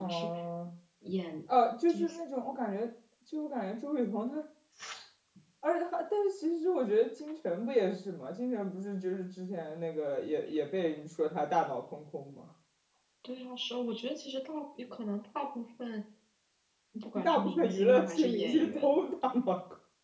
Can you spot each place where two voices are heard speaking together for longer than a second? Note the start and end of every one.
17.2-18.9

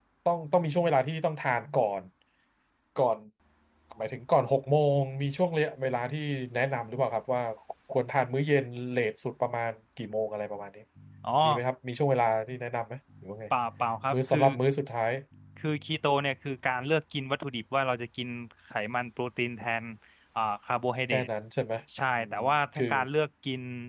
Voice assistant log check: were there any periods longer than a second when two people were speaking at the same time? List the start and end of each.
none

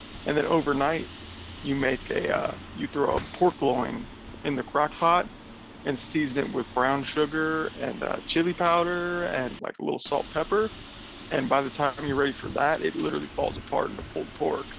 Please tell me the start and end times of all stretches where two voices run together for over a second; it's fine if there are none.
none

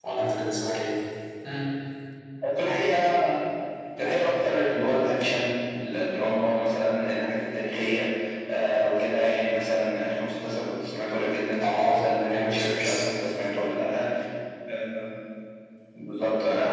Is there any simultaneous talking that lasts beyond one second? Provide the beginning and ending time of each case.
11.6-13.0

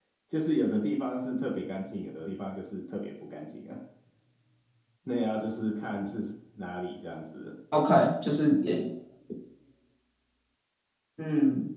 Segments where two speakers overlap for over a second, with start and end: none

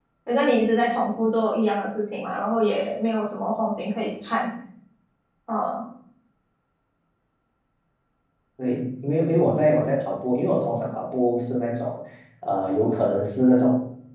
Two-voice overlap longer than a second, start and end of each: none

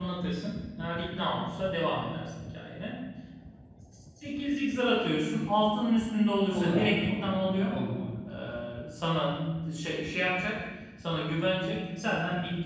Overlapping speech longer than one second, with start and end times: 6.5-7.8

